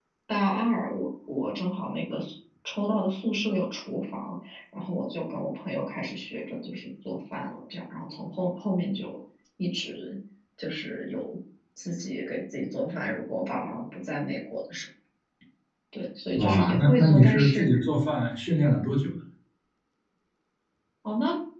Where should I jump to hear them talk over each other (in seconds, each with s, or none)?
16.4 s